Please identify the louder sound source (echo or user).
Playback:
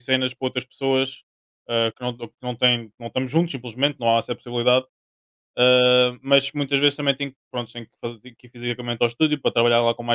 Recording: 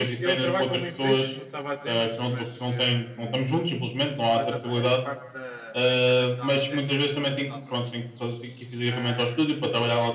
echo